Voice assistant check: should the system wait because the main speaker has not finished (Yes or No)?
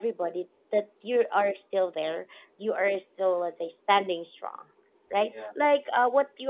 Yes